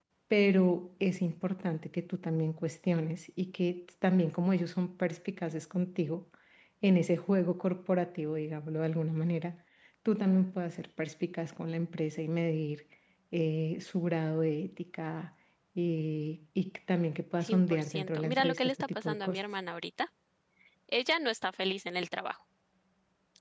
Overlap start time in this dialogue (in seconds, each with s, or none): 17.4 s